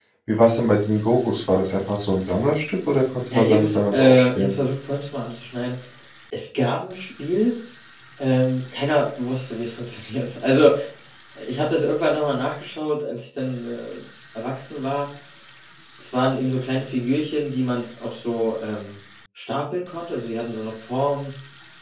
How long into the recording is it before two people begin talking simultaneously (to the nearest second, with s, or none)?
3 s